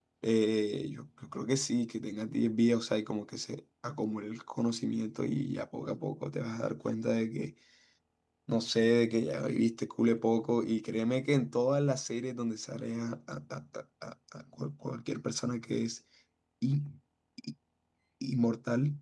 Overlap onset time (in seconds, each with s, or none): none